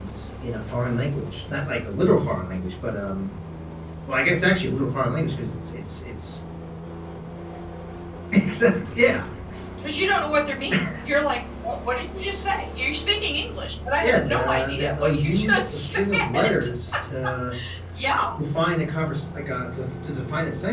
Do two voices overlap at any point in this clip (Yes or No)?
Yes